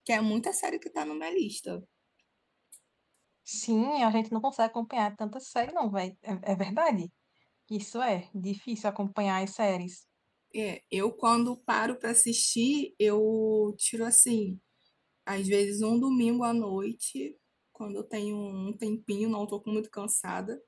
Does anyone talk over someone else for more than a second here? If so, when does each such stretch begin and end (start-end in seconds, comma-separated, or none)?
none